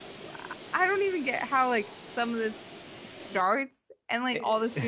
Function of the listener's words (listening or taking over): listening